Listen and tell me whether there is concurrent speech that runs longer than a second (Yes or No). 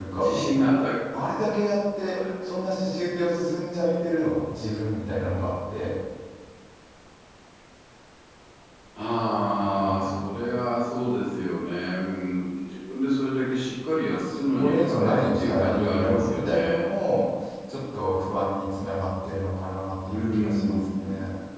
Yes